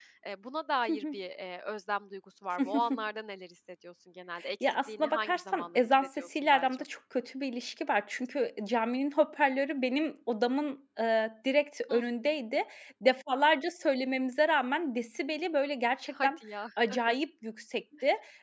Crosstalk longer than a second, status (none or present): present